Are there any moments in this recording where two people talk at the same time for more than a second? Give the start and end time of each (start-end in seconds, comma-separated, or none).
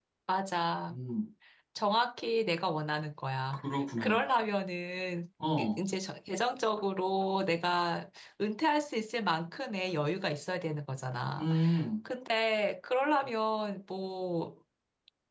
none